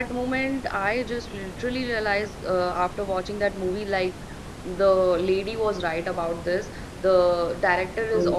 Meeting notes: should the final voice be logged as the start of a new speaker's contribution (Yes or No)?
No